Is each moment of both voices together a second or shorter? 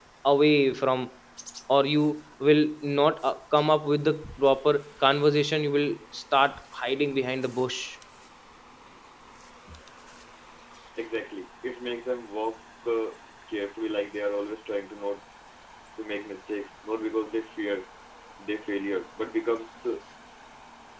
Yes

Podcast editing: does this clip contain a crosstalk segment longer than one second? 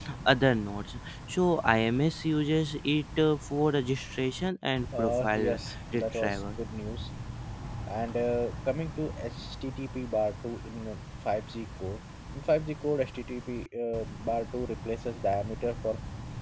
Yes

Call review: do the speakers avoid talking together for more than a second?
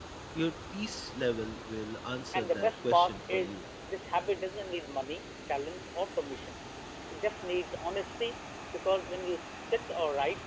No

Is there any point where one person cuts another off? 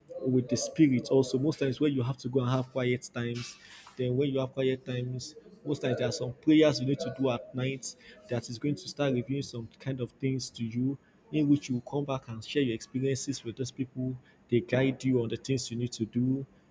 No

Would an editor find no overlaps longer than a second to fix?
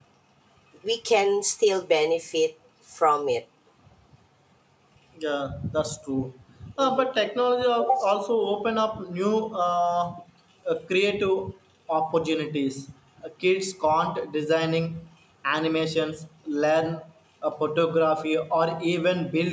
Yes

